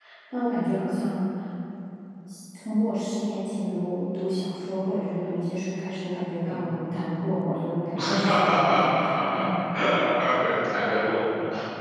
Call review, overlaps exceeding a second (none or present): present